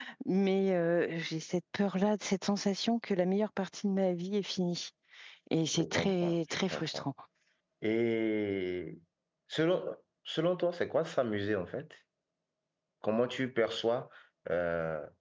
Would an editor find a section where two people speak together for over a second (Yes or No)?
Yes